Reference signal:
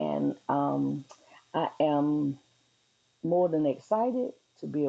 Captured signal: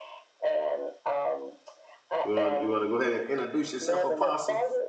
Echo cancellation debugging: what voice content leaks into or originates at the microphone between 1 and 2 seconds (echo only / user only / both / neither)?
echo only